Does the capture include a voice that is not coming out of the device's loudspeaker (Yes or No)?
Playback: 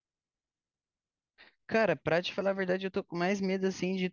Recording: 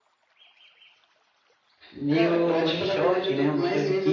Yes